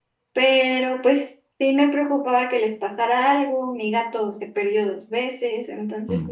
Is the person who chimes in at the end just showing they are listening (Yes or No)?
Yes